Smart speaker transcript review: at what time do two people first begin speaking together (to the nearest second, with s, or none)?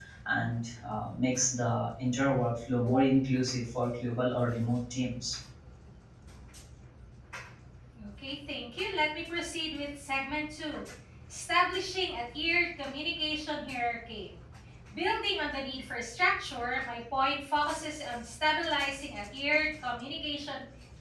none